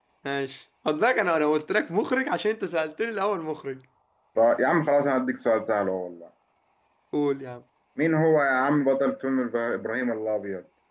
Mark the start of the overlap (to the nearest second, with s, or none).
none